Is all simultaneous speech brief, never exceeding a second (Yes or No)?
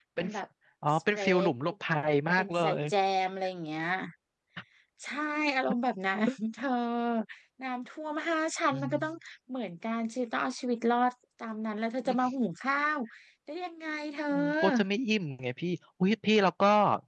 Yes